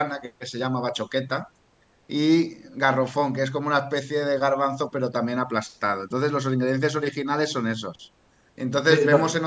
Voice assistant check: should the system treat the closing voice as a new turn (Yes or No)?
No